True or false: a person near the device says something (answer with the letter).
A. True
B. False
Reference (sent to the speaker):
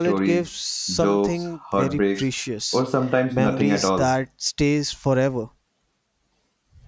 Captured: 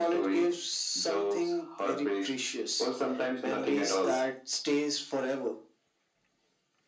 B